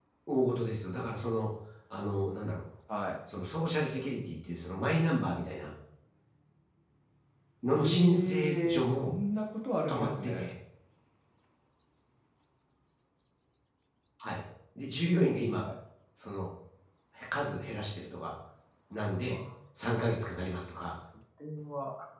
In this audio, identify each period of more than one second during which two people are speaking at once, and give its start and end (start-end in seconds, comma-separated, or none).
7.7-9.1